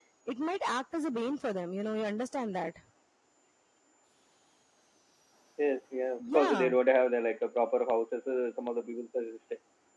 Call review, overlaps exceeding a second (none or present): none